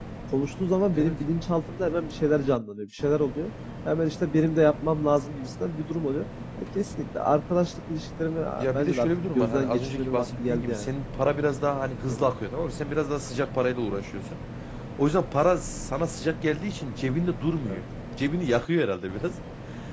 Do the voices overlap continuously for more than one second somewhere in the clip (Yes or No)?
Yes